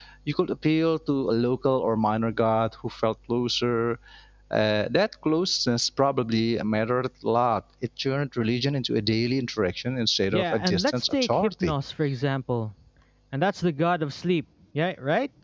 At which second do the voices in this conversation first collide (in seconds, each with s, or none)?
10.3 s